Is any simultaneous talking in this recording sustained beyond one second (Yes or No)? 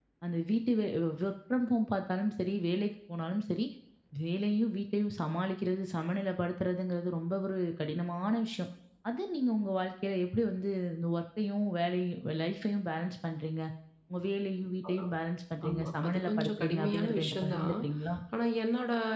Yes